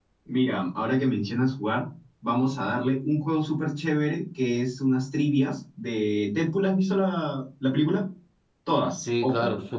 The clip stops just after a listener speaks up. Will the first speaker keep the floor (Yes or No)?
No